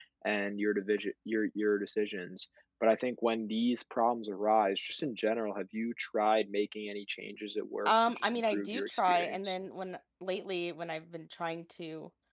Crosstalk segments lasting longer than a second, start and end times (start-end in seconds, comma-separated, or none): 7.8-9.6